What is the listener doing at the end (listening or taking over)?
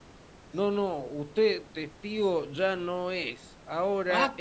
listening